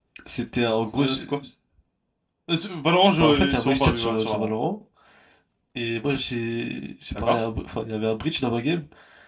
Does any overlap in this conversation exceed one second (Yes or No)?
Yes